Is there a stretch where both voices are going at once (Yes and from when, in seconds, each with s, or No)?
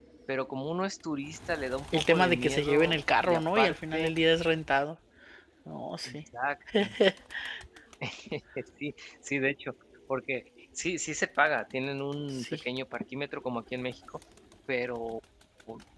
Yes, from 1.9 s